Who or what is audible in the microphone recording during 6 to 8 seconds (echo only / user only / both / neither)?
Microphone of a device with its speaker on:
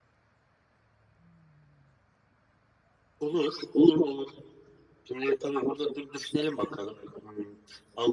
echo only